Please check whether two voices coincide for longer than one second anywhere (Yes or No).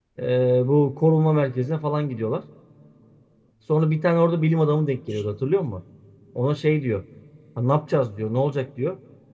No